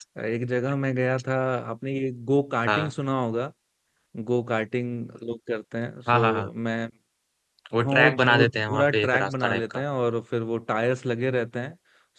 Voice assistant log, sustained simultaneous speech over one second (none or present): present